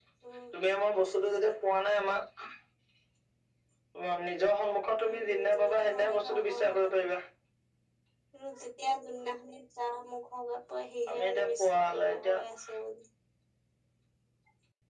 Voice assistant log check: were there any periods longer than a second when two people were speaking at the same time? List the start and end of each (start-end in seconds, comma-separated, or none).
5.0-7.1, 11.1-12.4